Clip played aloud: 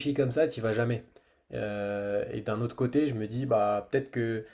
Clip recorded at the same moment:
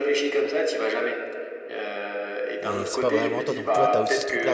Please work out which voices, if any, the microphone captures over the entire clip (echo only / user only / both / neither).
both